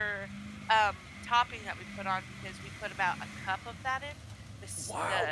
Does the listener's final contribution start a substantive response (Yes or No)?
Yes